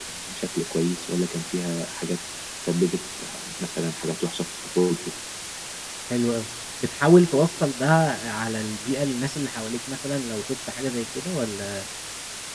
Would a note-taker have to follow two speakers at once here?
No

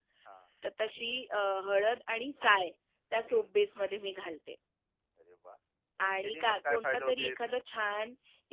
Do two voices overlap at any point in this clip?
Yes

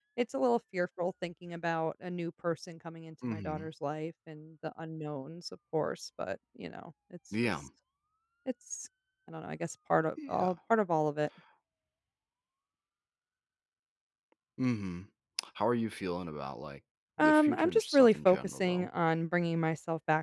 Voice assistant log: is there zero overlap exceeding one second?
No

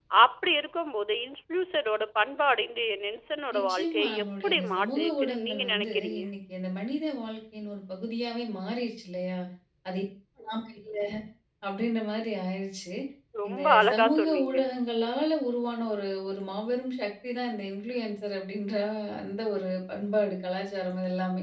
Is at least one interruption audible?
Yes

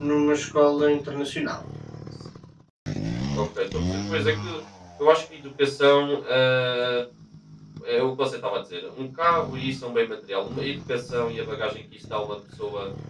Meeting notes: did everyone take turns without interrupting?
Yes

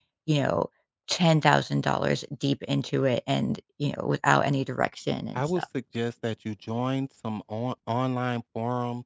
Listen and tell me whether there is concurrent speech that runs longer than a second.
No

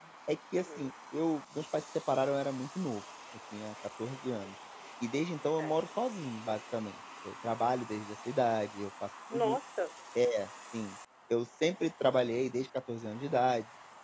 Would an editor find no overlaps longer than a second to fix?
Yes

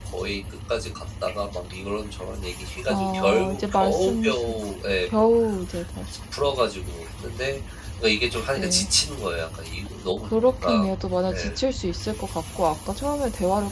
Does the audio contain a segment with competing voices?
Yes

